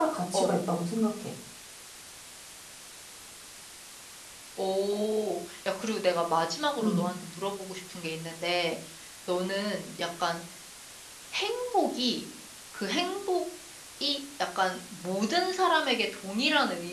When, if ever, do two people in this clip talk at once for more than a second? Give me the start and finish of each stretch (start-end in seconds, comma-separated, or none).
none